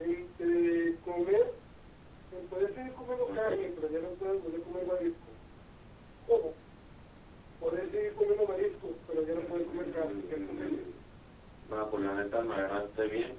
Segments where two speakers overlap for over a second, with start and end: 9.4-10.9

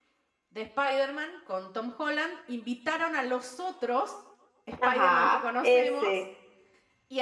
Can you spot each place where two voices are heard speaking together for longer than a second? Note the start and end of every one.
4.8-6.2

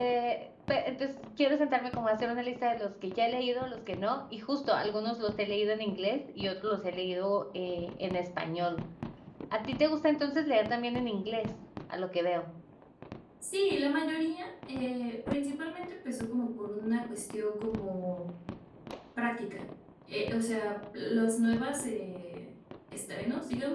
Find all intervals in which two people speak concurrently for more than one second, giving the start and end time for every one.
none

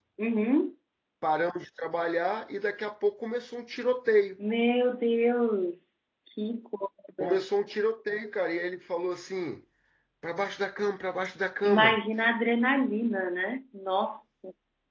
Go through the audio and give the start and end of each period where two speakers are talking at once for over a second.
none

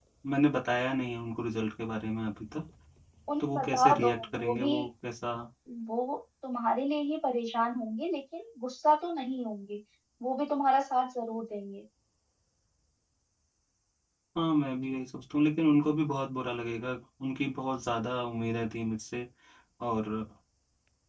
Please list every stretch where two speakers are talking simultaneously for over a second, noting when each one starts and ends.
3.4-4.7

